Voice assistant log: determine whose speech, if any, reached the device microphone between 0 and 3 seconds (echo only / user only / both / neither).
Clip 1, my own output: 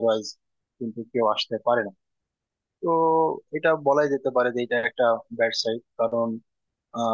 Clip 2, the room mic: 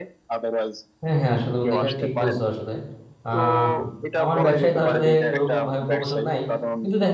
both